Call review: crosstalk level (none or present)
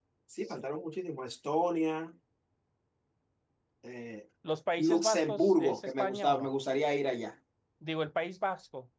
present